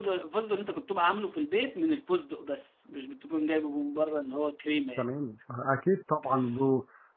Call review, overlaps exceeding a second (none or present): none